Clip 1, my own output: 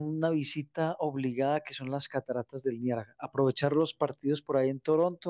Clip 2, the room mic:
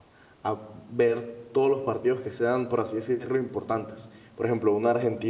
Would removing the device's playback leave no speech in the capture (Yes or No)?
No